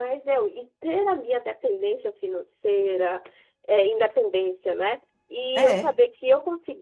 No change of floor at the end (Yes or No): Yes